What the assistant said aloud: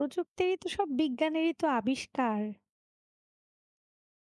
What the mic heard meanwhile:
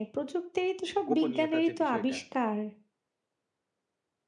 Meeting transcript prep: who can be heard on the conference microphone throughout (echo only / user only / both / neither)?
both